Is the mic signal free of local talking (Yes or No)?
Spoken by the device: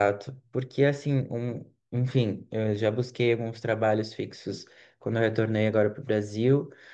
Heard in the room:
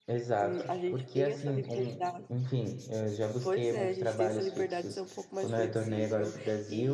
No